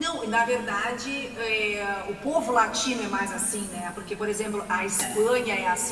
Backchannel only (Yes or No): Yes